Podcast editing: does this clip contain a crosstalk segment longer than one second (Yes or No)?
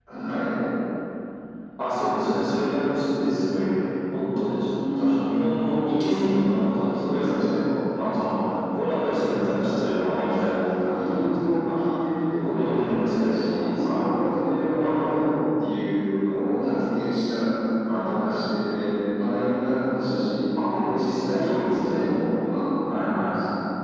Yes